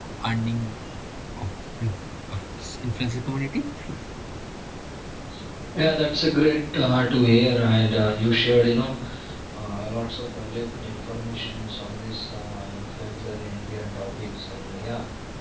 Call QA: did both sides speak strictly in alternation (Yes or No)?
Yes